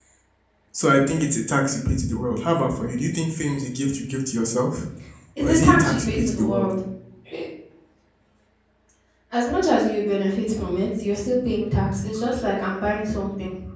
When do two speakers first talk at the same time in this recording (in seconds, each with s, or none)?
5.4 s